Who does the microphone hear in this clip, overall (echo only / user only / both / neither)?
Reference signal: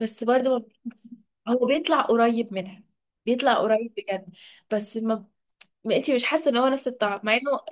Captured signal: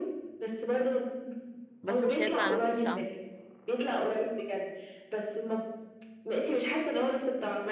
both